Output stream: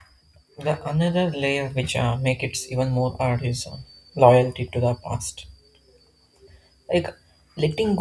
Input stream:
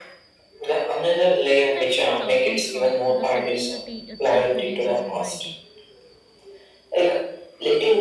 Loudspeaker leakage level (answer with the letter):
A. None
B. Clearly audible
B